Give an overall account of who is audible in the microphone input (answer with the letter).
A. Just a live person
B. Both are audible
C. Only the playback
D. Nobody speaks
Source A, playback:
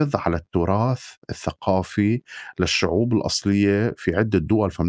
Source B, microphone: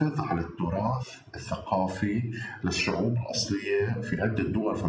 C